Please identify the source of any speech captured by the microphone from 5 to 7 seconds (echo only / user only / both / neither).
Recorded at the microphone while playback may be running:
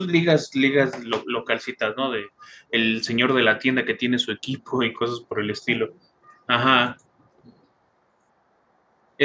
user only